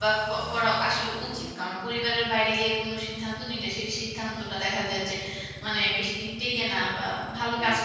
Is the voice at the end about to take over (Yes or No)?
Yes